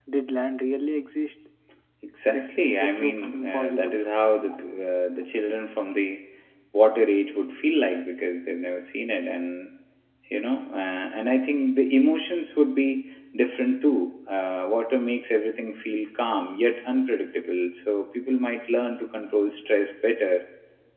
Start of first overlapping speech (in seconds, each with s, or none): 2.3 s